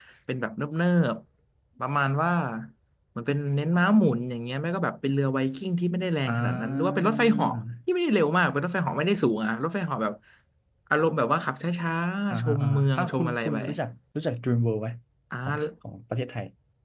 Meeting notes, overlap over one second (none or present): present